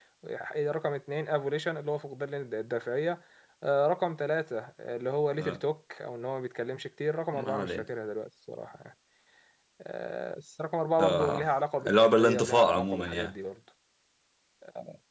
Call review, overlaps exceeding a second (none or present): present